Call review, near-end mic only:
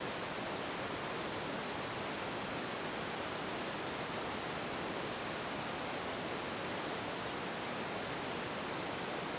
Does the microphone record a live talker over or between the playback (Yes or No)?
No